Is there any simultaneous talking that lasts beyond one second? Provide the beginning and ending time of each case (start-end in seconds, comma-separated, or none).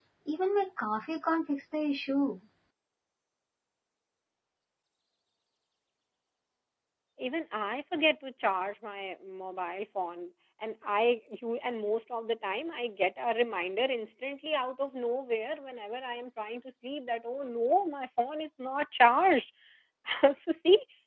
none